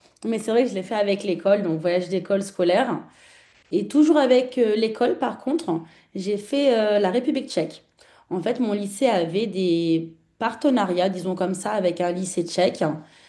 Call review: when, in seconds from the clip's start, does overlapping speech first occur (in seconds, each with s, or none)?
none